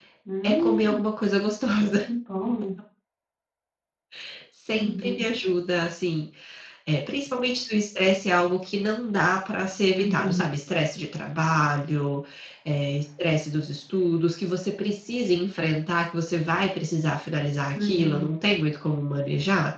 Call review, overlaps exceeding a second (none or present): none